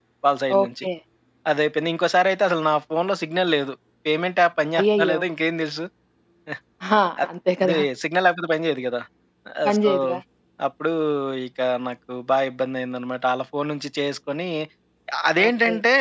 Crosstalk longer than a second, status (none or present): none